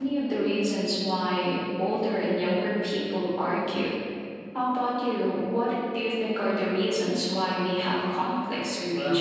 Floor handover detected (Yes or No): Yes